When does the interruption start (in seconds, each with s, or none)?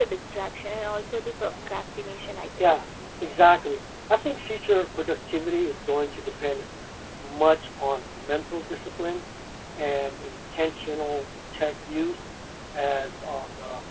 none